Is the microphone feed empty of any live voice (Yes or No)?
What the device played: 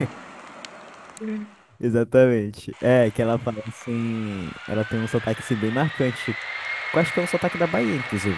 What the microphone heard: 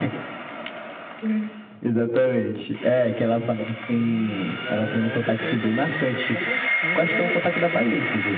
No